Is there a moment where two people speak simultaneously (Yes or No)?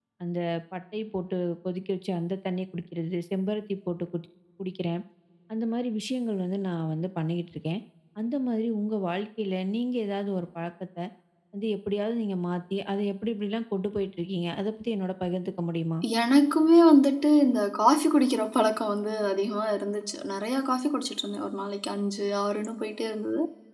No